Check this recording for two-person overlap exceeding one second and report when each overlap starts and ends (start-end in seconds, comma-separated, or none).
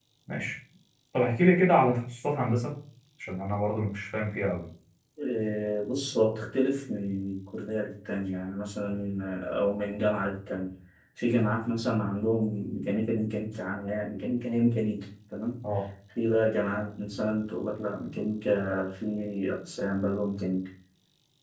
none